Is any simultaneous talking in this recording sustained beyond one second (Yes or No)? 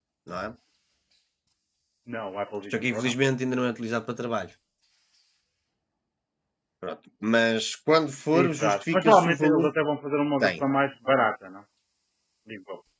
Yes